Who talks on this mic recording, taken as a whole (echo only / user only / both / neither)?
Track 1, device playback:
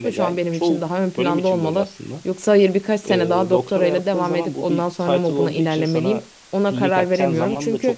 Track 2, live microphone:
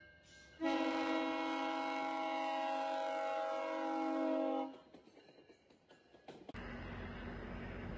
neither